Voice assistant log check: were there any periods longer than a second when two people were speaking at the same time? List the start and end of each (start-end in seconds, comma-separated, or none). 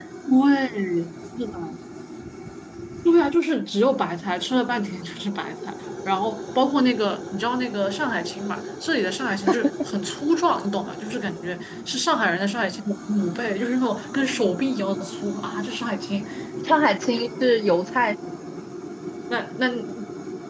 none